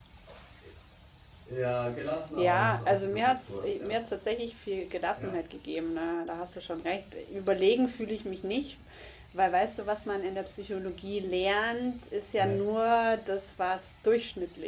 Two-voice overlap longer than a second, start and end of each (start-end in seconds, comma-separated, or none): 2.4-4.0